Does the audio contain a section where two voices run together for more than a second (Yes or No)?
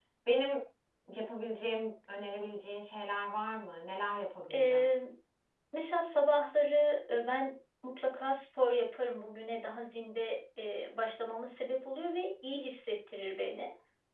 No